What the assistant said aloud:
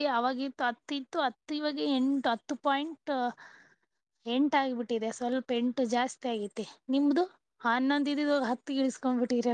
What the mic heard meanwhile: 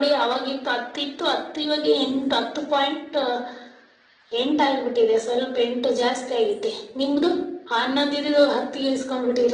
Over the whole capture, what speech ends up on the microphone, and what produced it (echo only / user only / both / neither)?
echo only